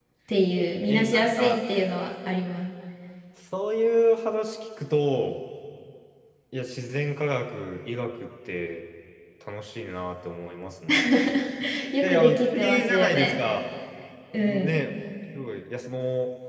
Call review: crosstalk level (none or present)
present